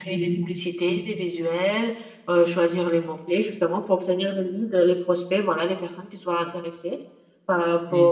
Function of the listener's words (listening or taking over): listening